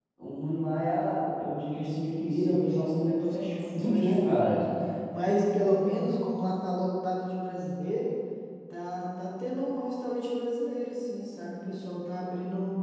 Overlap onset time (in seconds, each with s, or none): 1.9 s